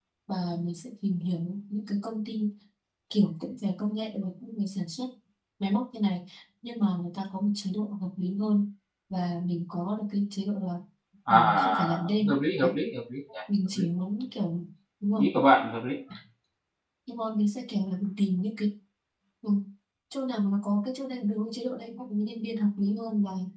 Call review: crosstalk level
present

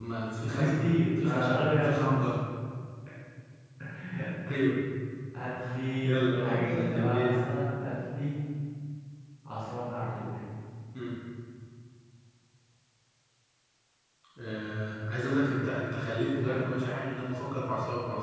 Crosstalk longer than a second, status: present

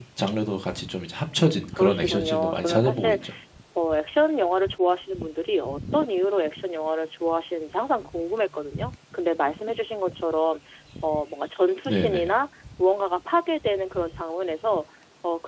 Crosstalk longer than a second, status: present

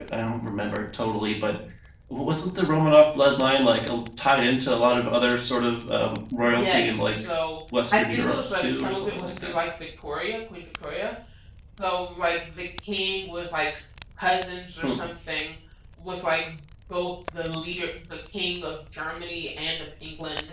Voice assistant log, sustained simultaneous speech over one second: present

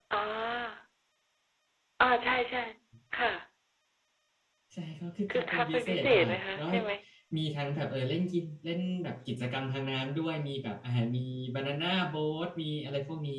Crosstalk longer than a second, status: present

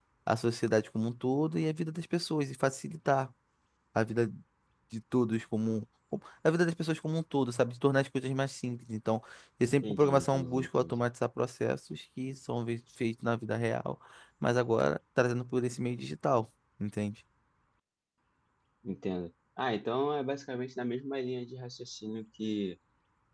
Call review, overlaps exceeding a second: present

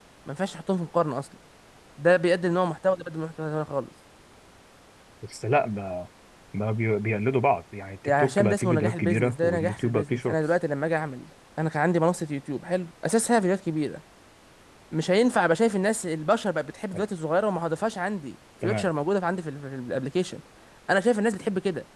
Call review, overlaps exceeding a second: present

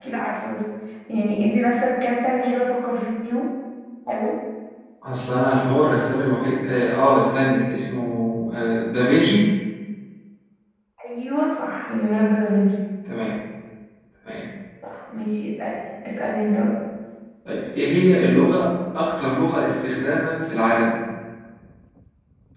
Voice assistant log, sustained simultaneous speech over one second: none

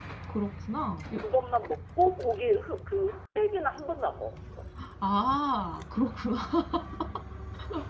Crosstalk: none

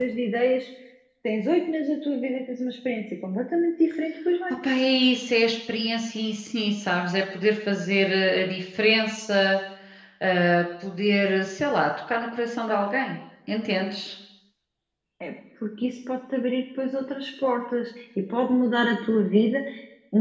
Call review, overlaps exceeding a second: none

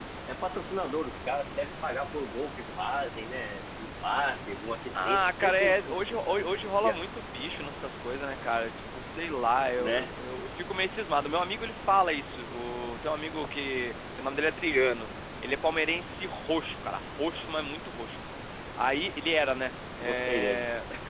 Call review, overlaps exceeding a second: present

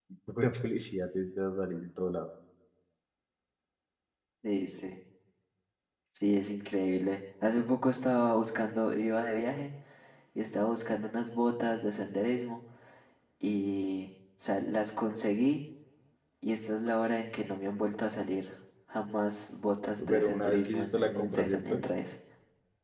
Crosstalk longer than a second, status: present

